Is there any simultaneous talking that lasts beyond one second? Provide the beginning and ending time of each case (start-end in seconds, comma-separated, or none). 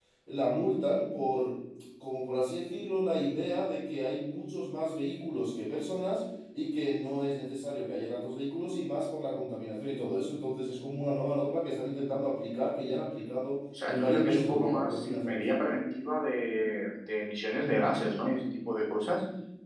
13.9-15.8